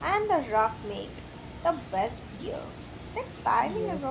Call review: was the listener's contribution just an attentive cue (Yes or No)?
No